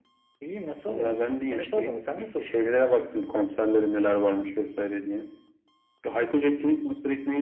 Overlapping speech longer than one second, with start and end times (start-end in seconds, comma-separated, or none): 0.9-2.6